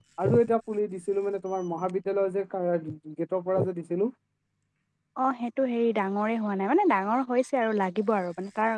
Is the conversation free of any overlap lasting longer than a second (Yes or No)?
Yes